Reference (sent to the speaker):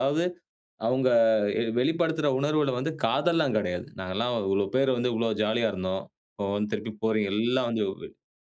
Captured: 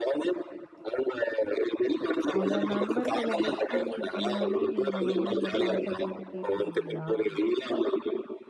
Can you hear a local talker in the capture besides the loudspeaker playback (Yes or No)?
Yes